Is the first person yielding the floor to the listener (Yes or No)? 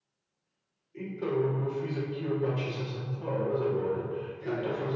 No